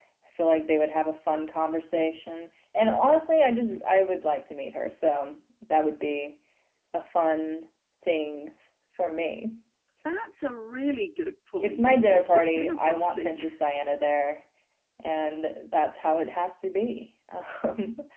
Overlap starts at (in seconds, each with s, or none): 11.6 s